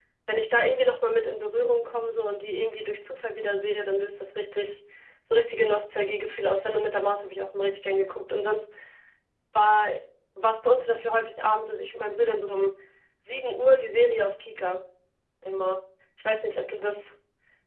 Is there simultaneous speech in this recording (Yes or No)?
No